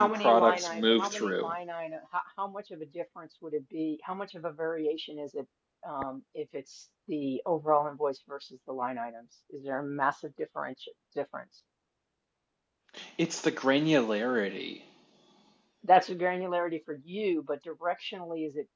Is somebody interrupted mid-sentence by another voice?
Yes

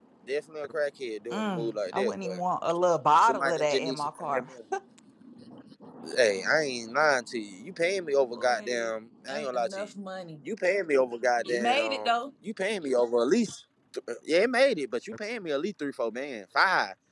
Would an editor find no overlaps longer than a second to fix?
No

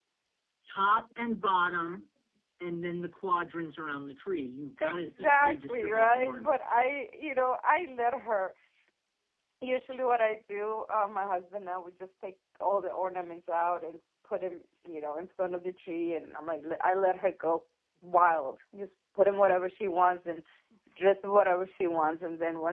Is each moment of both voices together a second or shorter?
No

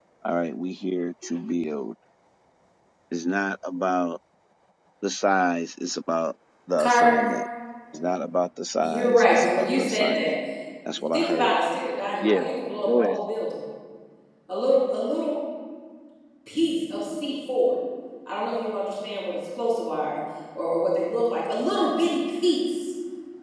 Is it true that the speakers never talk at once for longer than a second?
No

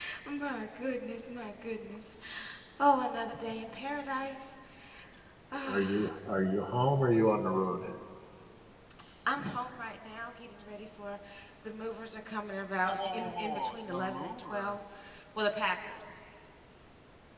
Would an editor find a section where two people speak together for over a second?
Yes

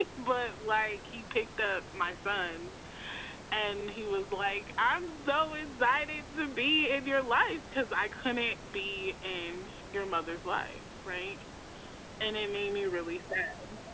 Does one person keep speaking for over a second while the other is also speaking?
No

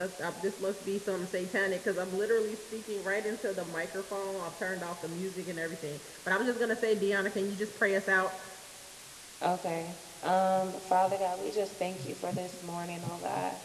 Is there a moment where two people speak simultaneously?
No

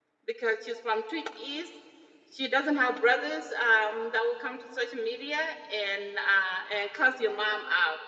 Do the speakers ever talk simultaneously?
No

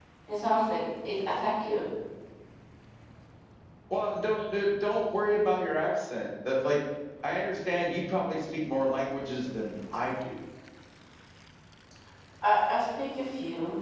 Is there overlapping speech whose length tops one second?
No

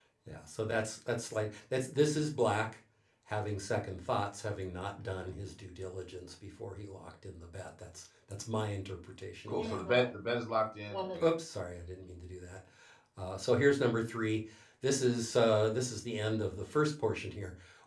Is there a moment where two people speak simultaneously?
No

